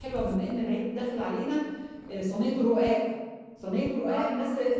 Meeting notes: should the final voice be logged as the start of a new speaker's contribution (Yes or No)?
No